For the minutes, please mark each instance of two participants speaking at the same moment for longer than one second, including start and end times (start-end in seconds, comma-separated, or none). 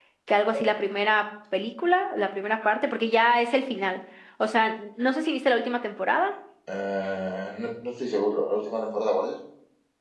none